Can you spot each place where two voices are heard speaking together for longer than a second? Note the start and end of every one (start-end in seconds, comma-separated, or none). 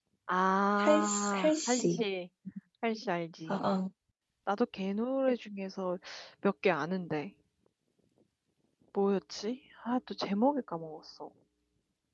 0.8-2.0